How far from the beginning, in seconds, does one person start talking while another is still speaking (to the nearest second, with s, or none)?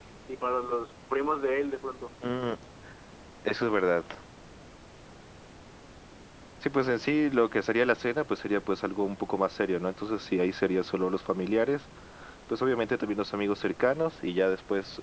none